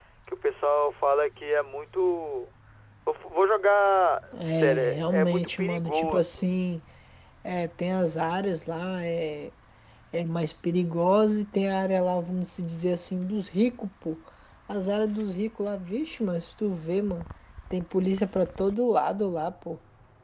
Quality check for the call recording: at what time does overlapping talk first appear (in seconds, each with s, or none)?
4.3 s